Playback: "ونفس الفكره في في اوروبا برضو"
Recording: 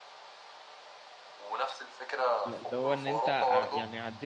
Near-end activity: present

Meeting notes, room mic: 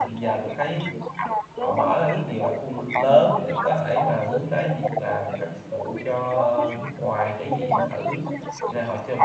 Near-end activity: present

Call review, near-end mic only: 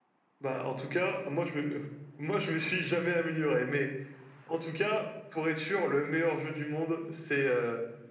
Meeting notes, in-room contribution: none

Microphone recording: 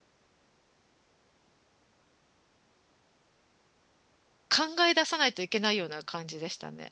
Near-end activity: present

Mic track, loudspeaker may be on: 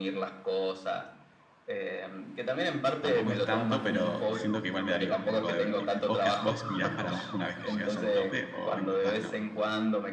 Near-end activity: present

